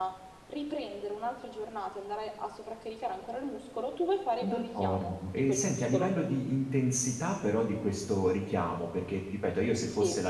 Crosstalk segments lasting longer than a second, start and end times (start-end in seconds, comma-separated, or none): 4.4-6.1